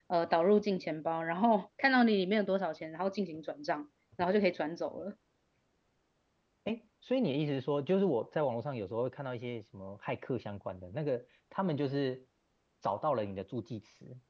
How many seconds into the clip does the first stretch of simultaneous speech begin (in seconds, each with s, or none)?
none